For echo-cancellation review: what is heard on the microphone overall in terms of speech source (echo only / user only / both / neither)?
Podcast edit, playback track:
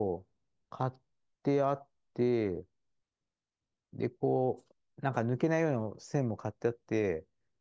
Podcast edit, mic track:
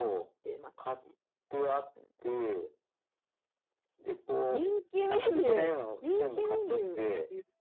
both